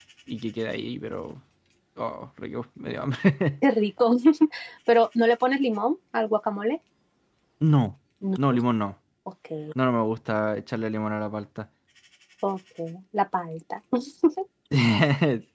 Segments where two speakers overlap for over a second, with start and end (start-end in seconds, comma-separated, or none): none